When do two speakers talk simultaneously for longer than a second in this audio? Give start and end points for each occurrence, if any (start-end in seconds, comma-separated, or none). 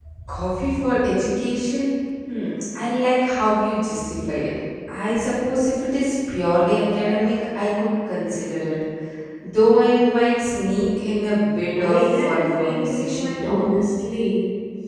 11.8-13.7